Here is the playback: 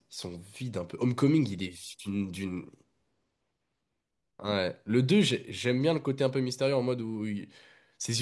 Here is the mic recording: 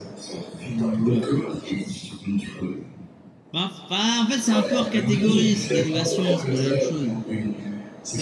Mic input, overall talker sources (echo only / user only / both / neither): both